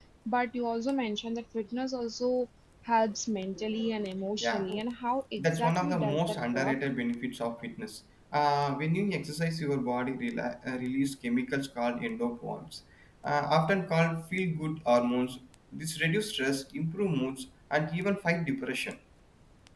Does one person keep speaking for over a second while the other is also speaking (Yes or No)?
Yes